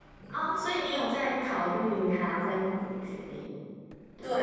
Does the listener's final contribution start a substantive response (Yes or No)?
Yes